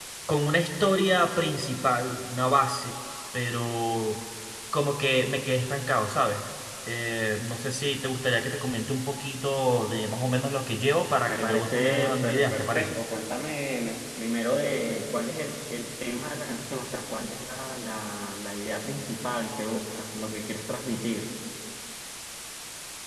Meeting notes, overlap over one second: present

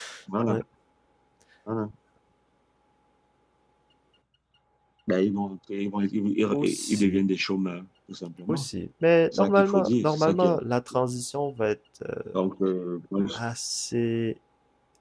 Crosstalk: present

